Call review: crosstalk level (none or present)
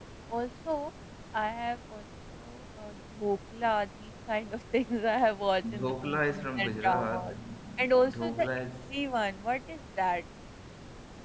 present